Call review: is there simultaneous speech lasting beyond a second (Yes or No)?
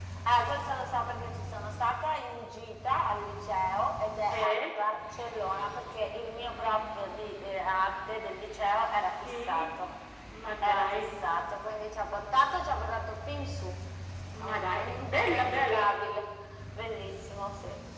Yes